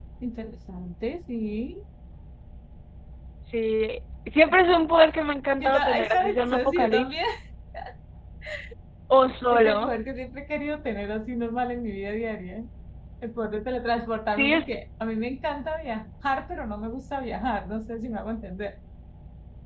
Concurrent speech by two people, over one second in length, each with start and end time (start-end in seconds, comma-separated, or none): 5.6-7.2